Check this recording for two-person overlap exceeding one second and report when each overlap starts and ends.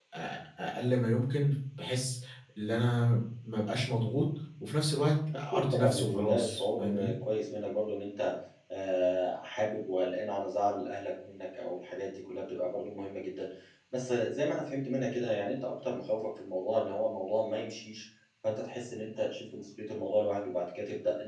5.3-7.1

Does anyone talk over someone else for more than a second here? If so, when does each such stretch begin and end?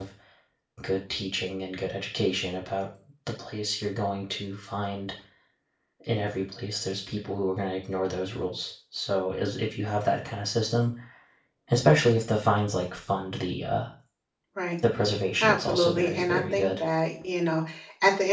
15.4-16.7

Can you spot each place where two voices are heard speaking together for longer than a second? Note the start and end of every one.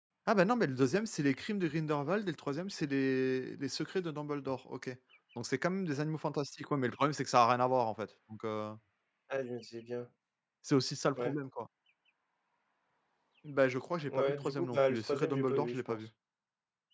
14.1-16.0

